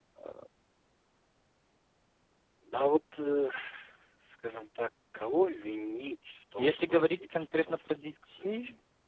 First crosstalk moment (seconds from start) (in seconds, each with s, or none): 6.6 s